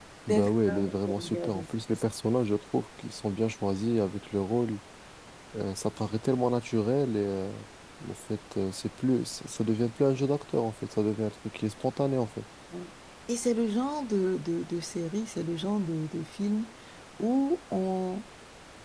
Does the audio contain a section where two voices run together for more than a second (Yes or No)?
Yes